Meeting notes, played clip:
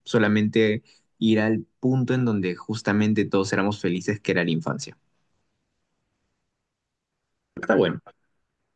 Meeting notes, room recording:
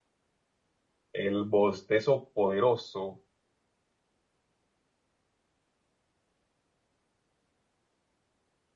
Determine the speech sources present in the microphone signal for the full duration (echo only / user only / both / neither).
user only